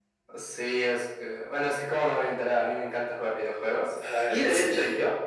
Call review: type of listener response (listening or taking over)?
listening